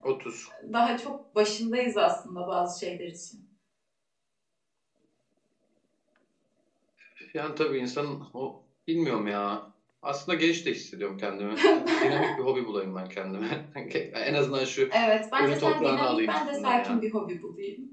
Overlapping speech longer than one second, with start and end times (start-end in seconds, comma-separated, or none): 15.4-17.0